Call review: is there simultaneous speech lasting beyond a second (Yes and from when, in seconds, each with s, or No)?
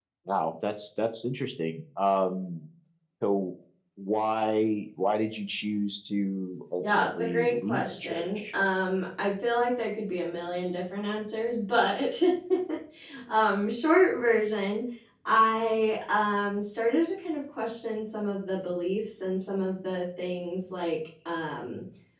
Yes, from 6.8 s